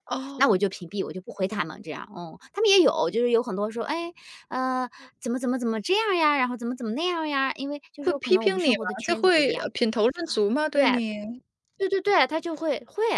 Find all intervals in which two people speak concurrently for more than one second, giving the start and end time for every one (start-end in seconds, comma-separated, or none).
8.1-9.7